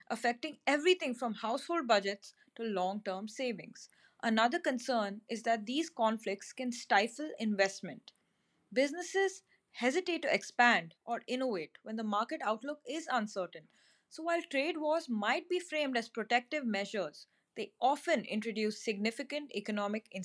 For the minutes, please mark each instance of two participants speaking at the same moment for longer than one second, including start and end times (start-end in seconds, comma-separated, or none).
none